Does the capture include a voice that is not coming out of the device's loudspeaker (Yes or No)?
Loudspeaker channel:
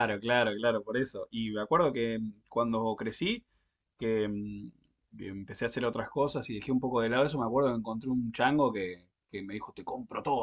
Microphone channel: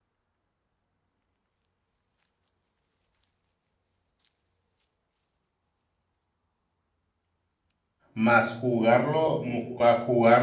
Yes